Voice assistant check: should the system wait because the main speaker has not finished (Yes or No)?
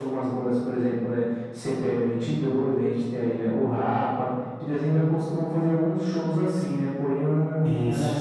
Yes